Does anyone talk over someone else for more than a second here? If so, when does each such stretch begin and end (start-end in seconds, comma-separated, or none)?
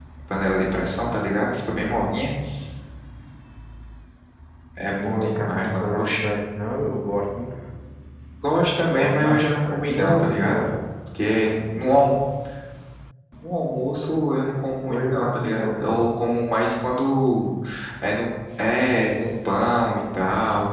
5.0-6.3, 9.0-10.6, 14.8-16.1